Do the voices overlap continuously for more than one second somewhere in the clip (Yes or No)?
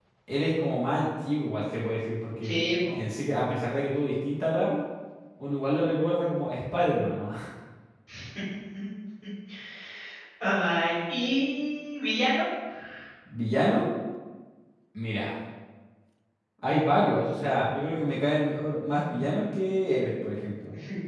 No